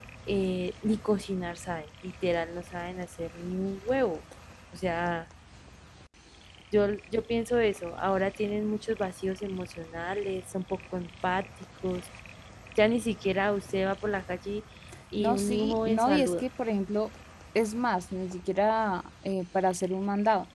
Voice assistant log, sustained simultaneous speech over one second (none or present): present